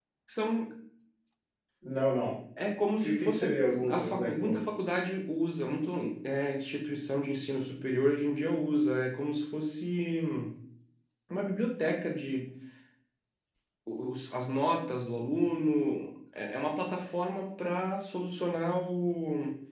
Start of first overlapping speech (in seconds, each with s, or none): 3.0 s